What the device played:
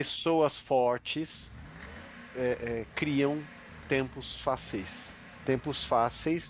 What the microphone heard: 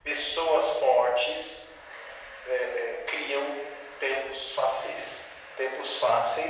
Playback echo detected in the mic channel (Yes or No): Yes